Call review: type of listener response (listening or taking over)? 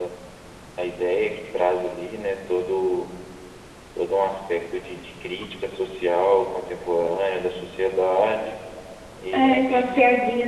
taking over